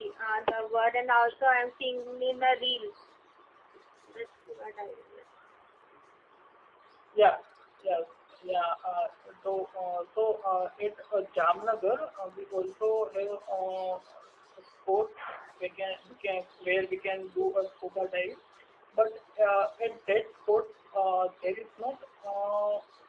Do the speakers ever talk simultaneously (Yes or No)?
No